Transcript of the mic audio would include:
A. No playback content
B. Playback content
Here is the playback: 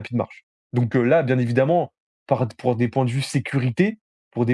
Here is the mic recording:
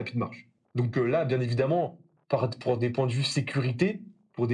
B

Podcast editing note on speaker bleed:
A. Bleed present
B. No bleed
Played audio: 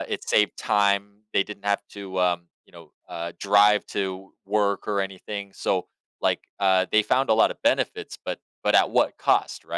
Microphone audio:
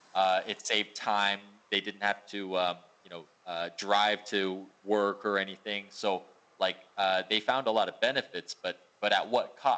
A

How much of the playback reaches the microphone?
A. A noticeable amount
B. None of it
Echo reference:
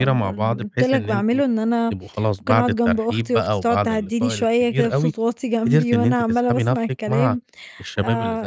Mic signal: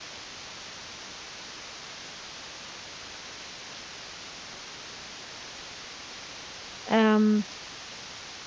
B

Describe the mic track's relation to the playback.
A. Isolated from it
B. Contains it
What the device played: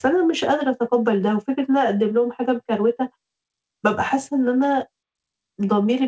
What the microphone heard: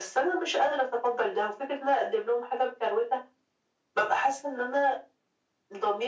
B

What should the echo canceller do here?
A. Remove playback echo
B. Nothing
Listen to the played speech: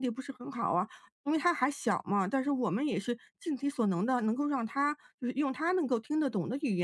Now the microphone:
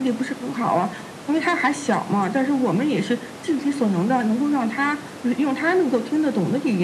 A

